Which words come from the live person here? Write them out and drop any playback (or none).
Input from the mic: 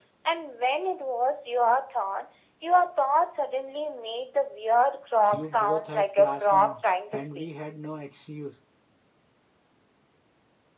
You both have class now. And we had no excuse.